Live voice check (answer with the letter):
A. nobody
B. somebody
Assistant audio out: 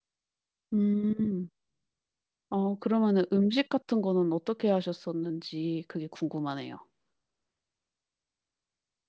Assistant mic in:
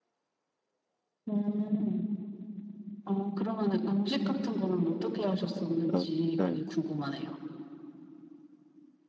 B